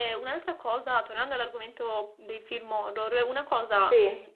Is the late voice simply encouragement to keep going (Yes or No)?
Yes